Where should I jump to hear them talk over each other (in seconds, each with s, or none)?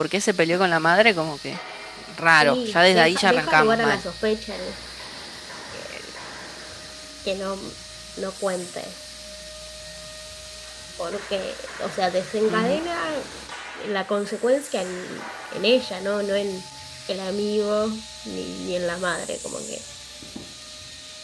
2.4 s